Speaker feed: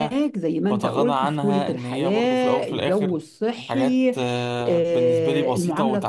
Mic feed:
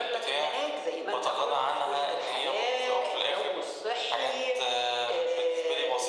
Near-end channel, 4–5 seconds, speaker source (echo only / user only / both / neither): echo only